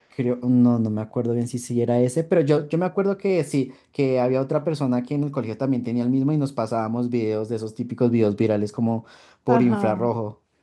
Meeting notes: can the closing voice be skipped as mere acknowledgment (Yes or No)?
No